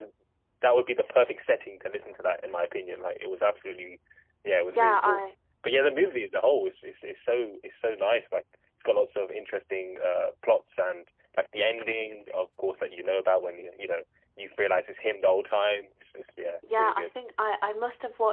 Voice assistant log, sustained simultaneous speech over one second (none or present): none